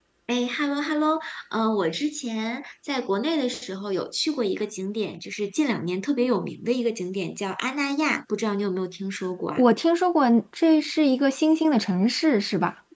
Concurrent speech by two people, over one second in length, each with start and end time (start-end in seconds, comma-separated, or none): none